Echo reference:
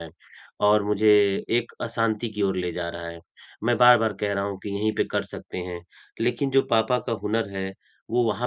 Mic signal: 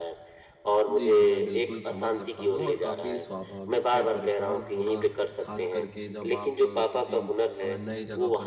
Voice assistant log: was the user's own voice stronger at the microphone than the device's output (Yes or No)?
No